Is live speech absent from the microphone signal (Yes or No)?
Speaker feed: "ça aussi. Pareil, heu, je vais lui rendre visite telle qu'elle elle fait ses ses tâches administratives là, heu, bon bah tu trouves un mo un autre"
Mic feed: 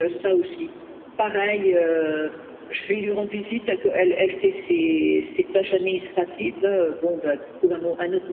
Yes